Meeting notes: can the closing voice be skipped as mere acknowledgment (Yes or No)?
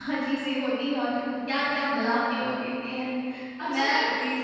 No